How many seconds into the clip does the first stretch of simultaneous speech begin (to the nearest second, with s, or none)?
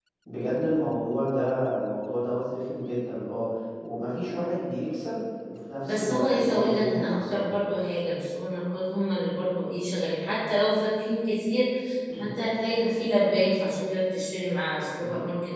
6 s